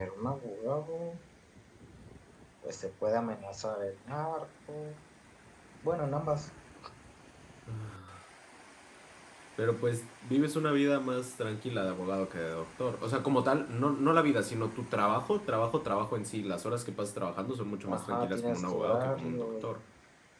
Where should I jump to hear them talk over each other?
18 s

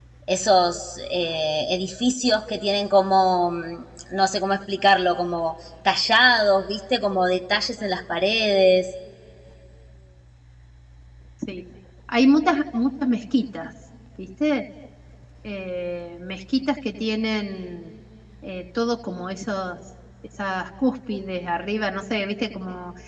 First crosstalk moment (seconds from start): none

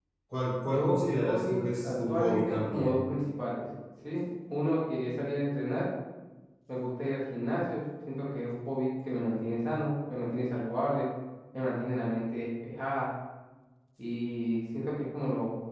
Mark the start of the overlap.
1 s

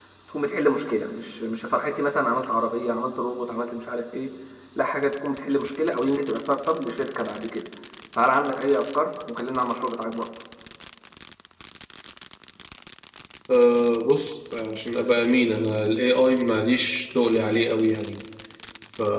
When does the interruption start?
none

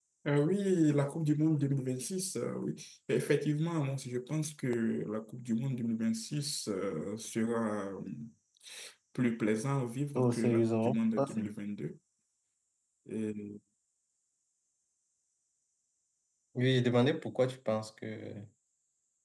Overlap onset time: 10 s

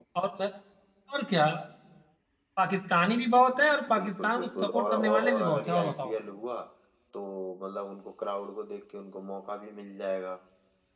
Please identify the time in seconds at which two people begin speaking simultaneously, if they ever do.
4 s

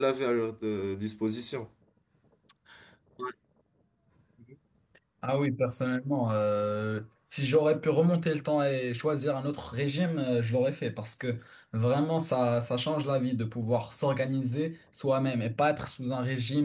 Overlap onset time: none

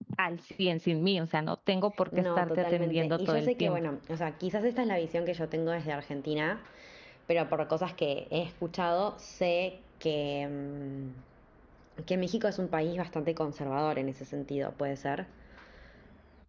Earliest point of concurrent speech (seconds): 2 s

